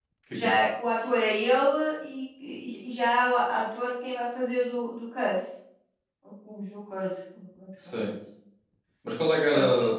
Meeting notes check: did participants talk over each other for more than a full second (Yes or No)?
No